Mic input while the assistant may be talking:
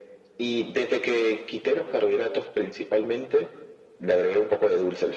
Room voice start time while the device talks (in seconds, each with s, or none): none